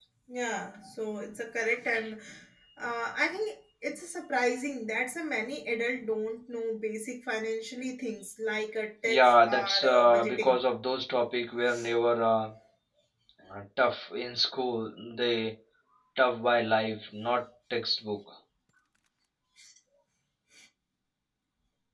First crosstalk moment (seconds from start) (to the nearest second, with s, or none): 9 s